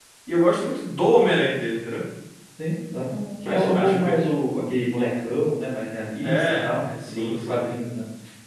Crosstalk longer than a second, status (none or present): present